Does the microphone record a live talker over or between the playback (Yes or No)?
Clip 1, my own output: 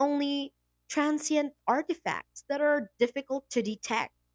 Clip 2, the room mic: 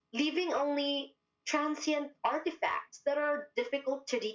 No